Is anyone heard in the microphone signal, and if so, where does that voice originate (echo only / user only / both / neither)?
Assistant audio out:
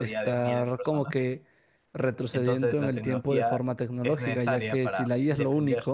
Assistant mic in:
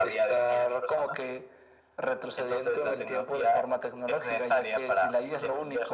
echo only